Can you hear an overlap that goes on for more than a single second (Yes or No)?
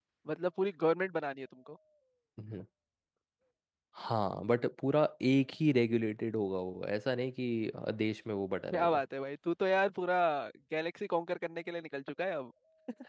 No